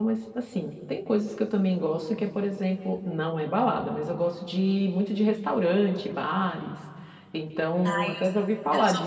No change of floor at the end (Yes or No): No